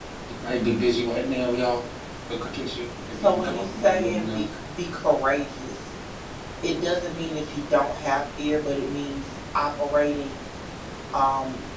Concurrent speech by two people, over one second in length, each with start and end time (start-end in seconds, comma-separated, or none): 3.2-4.4